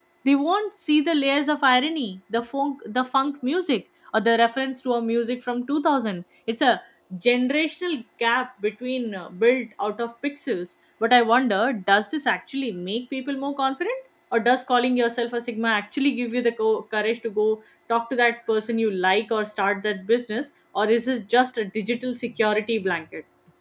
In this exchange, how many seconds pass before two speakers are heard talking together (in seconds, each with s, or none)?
none